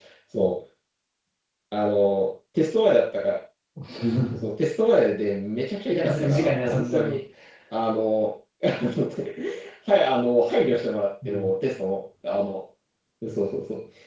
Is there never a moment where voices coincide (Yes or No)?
No